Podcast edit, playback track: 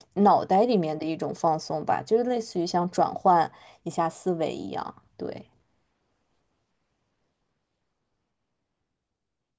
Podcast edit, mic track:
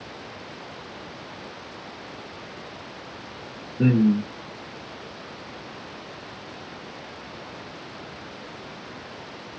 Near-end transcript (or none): 嗯